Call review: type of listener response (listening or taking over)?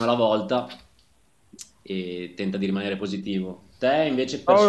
taking over